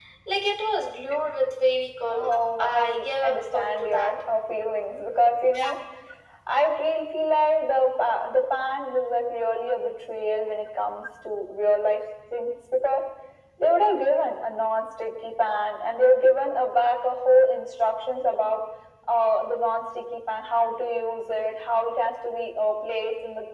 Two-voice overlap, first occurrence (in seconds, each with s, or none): 2.1 s